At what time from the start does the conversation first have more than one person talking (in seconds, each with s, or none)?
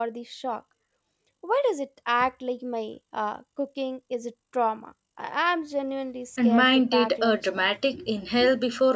6.4 s